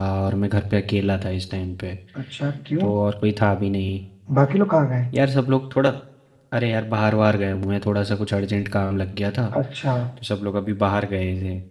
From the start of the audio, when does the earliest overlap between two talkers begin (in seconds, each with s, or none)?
none